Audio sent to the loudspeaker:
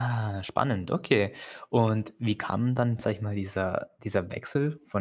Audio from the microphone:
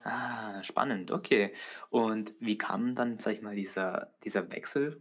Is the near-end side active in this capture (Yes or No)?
No